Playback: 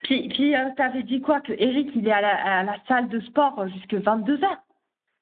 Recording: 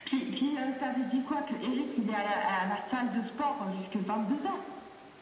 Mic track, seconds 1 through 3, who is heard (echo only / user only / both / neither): echo only